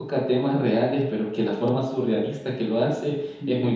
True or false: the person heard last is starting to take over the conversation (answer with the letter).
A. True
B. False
A